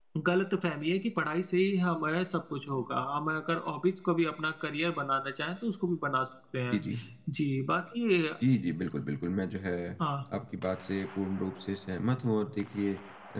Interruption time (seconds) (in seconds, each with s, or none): none